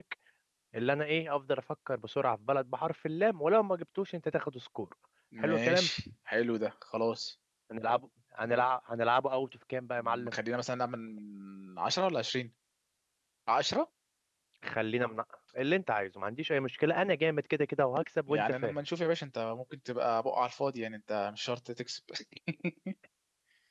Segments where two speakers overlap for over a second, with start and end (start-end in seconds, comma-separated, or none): none